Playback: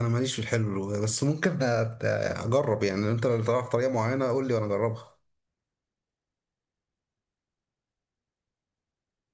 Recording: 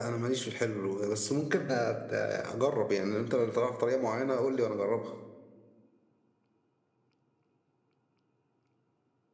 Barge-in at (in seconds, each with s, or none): none